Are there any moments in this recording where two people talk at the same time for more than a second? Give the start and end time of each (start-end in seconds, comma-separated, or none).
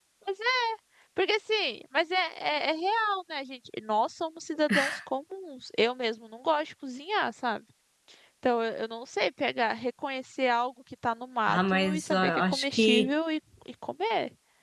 11.5-13.1